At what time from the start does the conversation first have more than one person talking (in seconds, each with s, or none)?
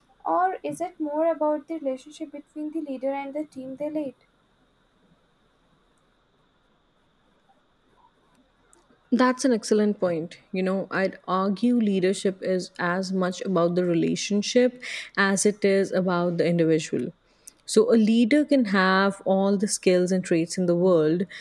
none